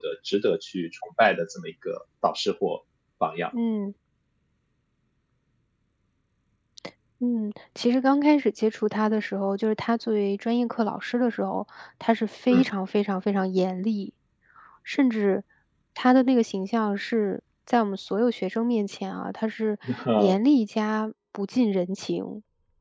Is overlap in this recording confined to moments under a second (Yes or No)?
Yes